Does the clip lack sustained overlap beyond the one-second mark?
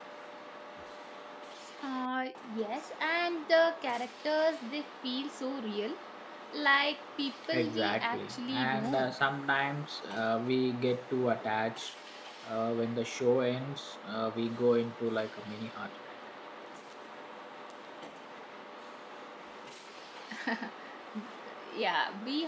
No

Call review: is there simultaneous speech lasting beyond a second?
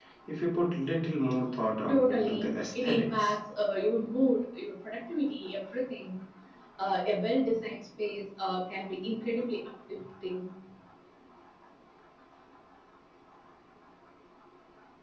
Yes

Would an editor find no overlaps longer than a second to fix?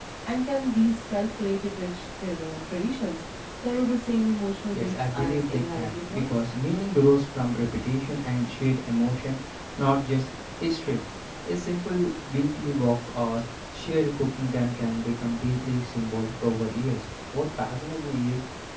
No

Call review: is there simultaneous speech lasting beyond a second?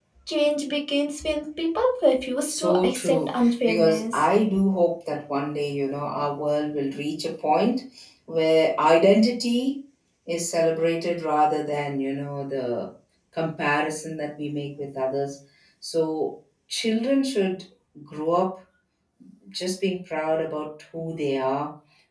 Yes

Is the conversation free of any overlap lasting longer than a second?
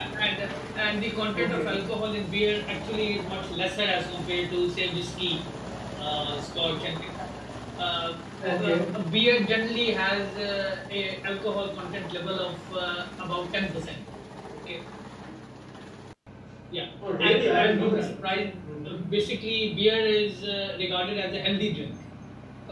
No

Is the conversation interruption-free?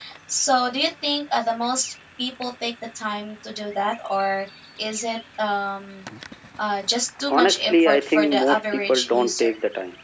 No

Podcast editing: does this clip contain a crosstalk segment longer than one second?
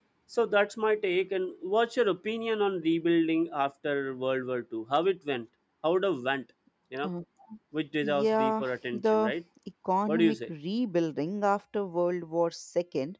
Yes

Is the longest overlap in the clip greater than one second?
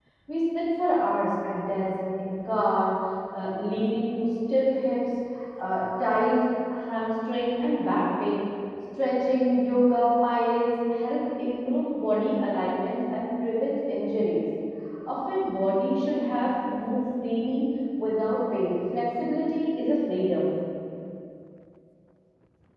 No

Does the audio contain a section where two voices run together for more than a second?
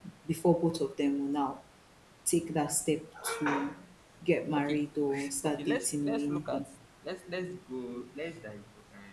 Yes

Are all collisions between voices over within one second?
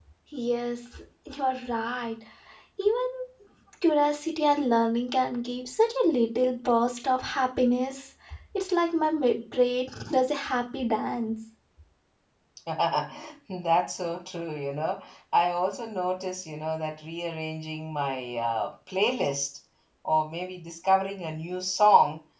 Yes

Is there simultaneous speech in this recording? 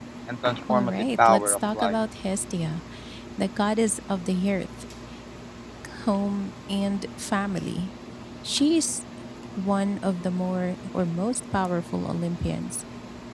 Yes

